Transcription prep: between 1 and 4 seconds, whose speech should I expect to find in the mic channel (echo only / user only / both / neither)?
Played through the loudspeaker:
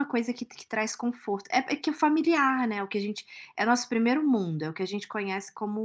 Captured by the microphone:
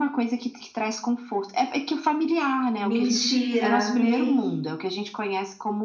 both